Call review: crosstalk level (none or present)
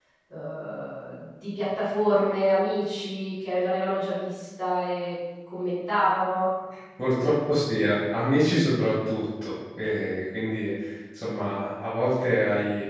none